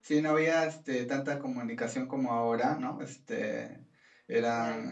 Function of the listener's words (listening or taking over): listening